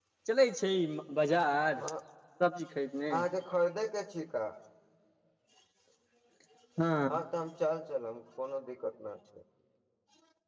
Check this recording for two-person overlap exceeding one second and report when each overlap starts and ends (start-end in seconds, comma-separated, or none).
none